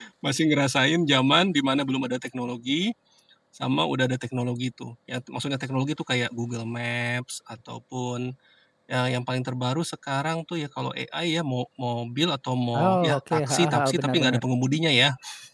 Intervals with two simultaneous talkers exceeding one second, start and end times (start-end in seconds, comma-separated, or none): 12.8-14.4